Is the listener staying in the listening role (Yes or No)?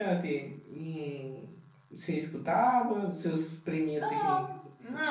No